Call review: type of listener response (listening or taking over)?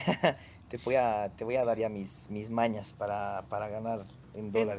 taking over